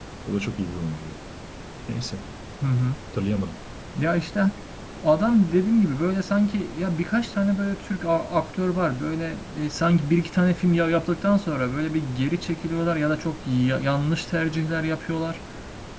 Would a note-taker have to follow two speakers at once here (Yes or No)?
No